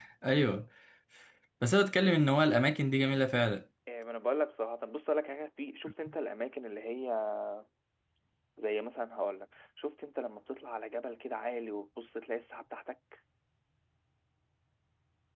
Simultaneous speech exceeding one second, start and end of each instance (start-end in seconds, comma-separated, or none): none